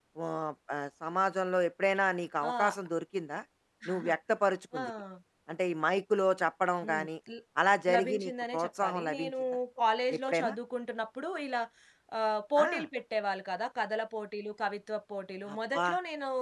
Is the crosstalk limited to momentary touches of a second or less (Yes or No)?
No